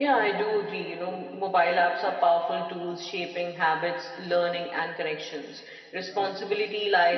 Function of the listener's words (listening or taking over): listening